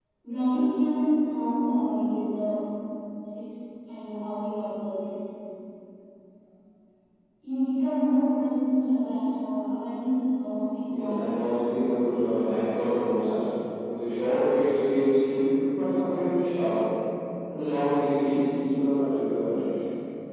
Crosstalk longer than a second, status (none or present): present